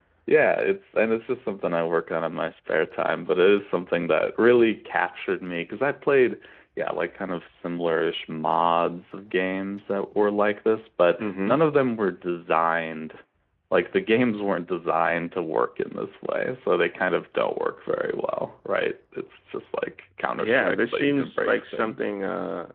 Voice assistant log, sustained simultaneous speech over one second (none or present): present